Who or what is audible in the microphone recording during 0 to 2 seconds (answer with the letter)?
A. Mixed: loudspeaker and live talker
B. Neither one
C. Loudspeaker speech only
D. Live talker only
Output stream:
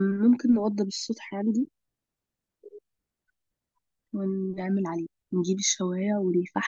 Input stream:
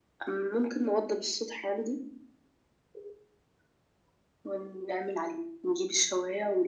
C